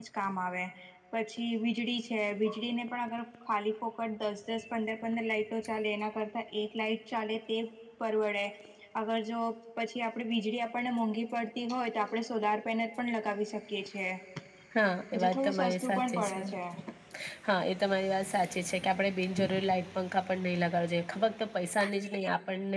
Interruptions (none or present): present